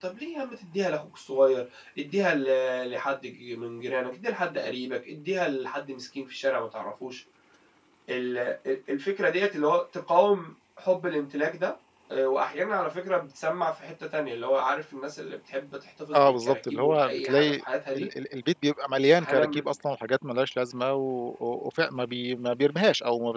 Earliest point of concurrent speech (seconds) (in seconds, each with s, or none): 16.1 s